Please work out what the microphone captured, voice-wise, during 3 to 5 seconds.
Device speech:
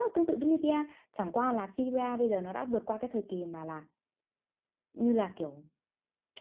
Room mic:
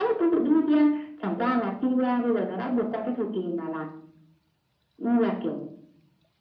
echo only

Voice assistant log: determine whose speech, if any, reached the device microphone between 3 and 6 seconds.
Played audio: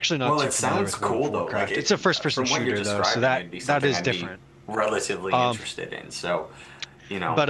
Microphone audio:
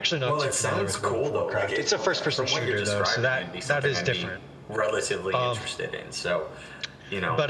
echo only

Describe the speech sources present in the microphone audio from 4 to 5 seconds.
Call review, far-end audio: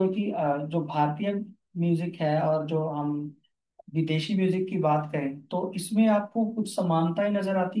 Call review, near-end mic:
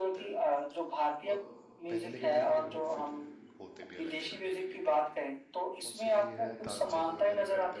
both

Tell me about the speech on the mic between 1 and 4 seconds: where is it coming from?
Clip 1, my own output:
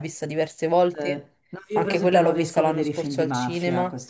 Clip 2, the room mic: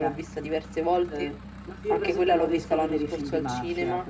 echo only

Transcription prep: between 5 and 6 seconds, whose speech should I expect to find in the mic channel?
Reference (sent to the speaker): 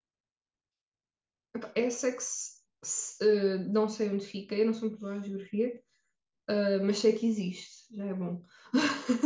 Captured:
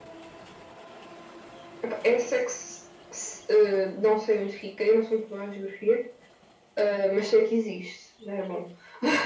echo only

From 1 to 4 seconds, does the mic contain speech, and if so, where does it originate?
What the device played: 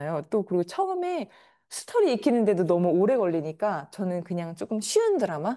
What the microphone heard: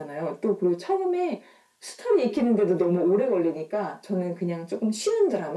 echo only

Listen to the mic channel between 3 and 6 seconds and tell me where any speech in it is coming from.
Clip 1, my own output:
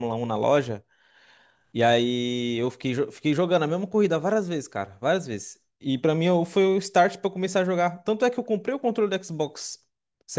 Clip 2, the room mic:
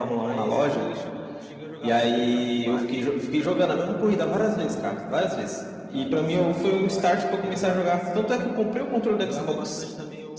both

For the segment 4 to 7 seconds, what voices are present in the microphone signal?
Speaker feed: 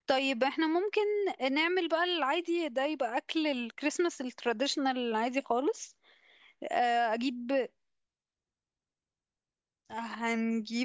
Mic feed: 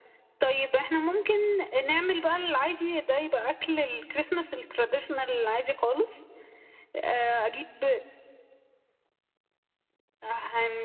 echo only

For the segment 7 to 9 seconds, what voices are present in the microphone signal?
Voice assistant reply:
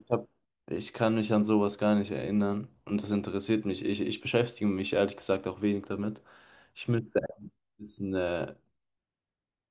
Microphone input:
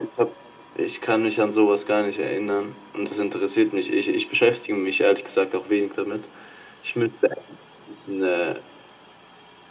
echo only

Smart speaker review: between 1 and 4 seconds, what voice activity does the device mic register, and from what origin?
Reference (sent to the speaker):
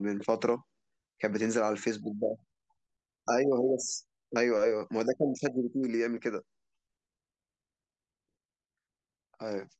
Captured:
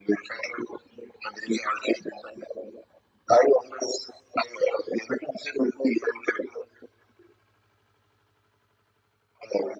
echo only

